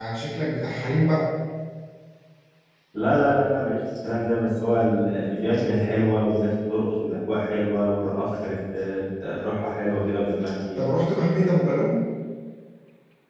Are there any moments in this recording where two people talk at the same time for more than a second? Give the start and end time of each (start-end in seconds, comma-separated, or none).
none